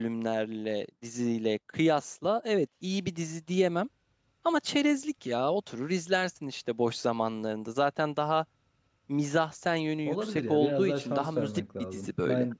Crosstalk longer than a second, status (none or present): present